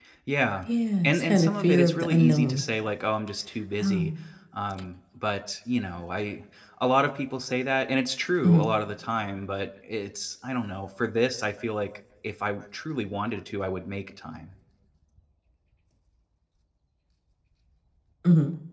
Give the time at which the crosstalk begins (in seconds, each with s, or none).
1.0 s